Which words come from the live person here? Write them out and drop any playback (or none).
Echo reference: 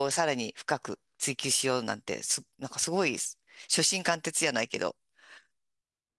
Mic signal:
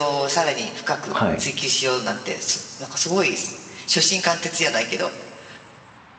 はい、